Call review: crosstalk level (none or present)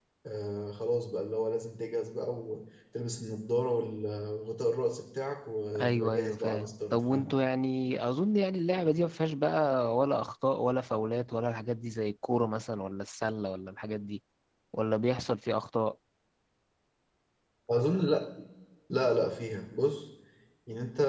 present